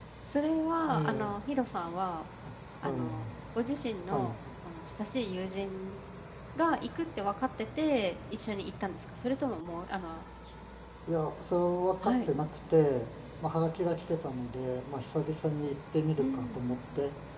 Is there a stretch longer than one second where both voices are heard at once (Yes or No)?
No